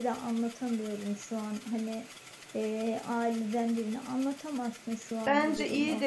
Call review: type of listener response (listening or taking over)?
taking over